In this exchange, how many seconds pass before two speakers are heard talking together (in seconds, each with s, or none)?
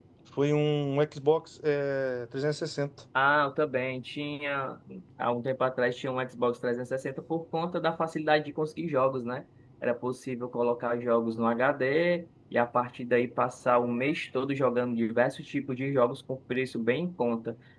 none